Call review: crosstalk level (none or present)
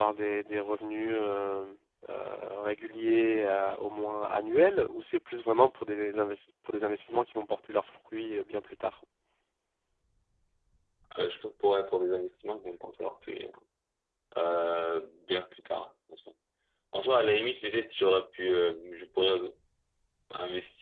none